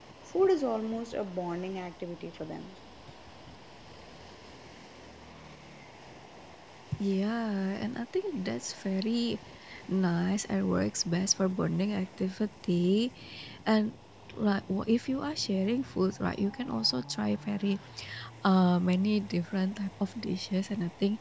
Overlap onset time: none

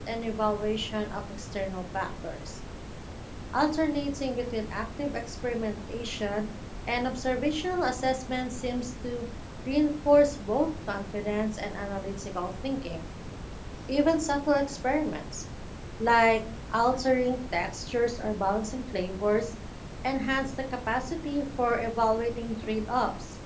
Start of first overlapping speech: none

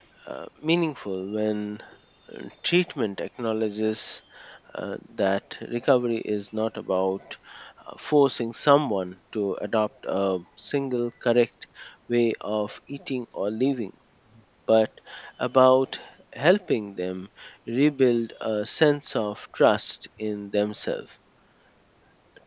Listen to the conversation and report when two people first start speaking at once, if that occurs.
none

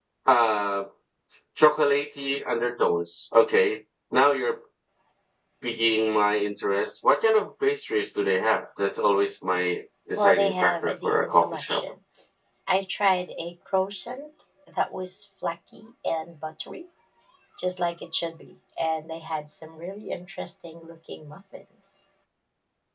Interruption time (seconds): 10.2 s

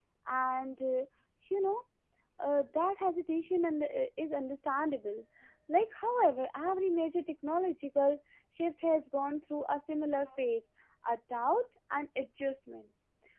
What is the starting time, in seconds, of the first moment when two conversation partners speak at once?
none

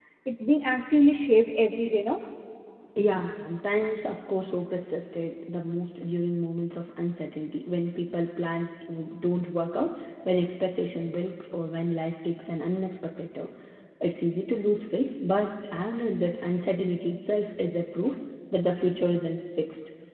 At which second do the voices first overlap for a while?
none

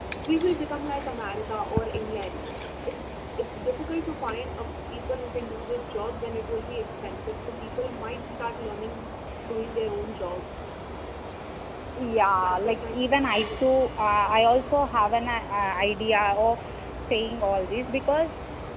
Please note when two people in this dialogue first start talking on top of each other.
12.4 s

